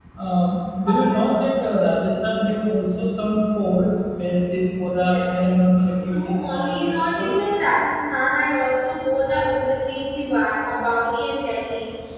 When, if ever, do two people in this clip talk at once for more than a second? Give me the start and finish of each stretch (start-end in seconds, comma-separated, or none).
6.0-7.4